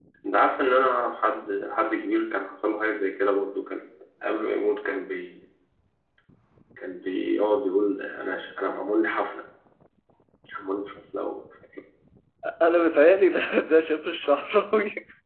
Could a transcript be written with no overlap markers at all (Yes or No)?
Yes